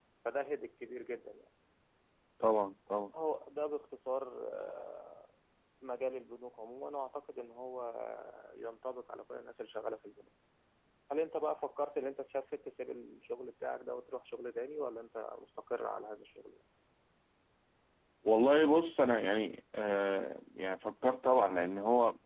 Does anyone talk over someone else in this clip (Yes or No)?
No